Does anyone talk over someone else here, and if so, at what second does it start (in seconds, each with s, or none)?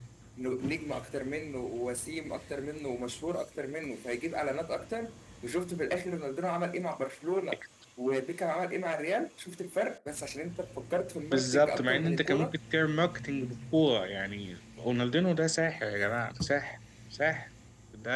11.3 s